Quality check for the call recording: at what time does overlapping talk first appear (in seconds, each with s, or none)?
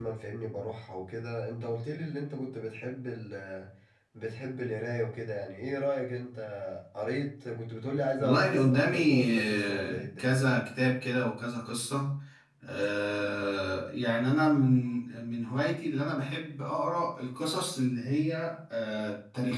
8.2 s